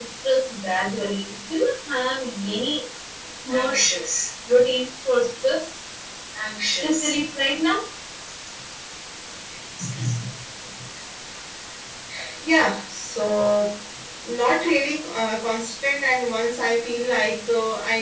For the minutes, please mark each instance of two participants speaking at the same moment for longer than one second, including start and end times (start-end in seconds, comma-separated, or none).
none